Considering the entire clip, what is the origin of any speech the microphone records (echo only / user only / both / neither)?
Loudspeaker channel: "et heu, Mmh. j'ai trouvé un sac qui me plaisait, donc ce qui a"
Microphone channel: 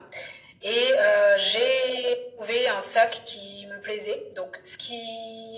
echo only